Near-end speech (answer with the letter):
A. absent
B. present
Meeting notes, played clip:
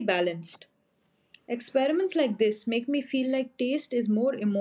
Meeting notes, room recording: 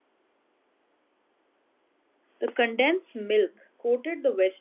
B